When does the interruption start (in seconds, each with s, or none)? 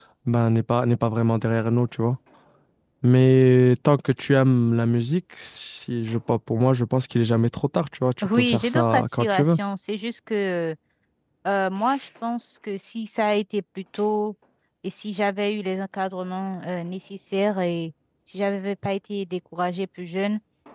8.2 s